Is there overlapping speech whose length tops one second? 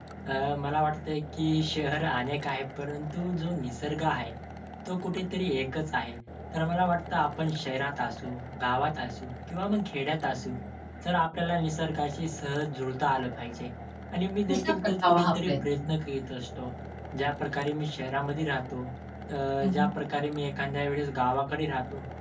Yes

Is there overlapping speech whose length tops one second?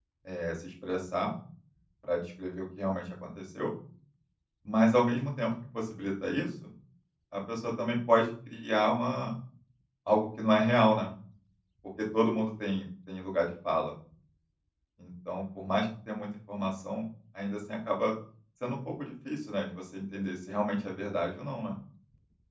No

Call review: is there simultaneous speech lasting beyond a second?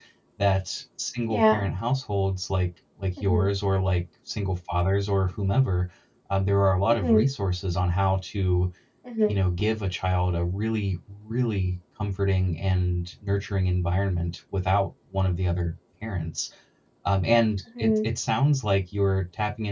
No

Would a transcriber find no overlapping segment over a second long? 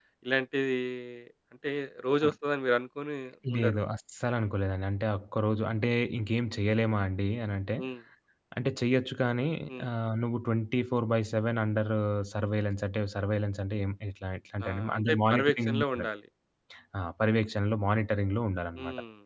No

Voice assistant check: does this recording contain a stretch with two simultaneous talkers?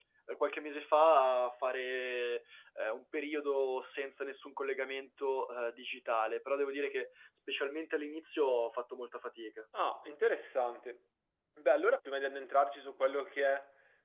No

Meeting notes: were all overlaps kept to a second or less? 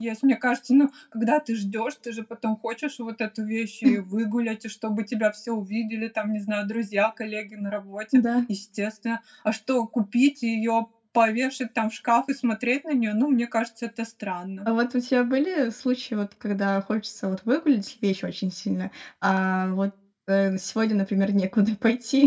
Yes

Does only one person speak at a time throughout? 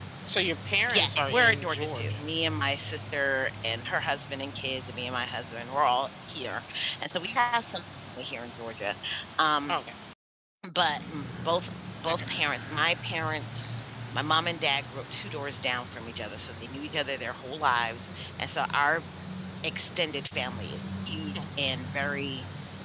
No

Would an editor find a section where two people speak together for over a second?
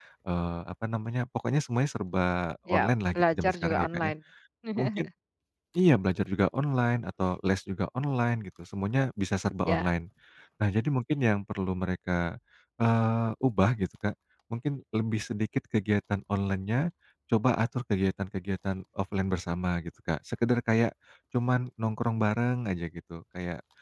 Yes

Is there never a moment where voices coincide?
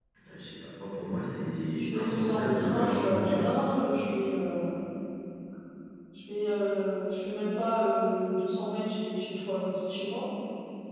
No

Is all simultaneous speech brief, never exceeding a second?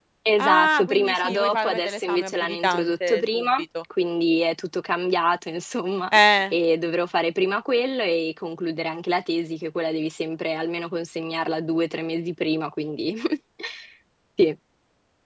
No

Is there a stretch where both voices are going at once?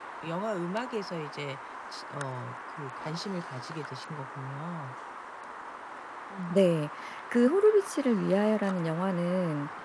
No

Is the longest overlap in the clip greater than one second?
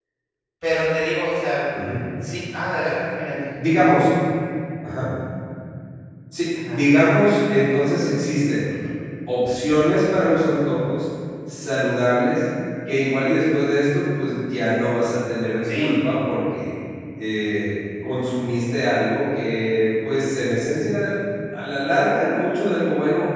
No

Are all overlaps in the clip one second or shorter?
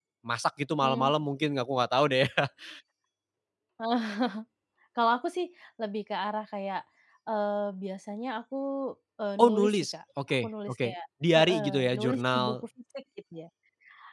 No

